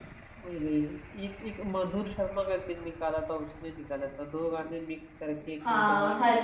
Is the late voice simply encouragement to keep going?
No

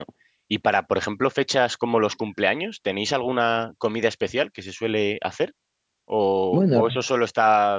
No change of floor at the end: Yes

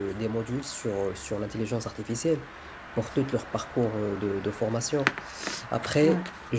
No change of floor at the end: Yes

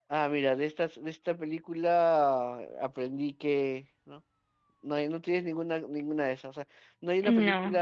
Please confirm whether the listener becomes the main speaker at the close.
No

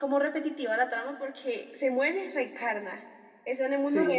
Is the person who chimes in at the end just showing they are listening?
No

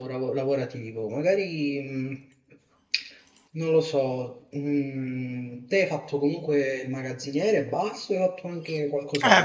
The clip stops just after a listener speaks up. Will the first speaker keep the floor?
No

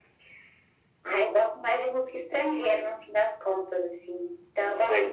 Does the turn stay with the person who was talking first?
Yes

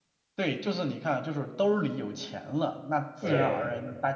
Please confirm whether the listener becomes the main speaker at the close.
No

